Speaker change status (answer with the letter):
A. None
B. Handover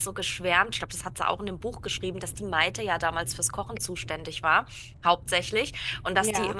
A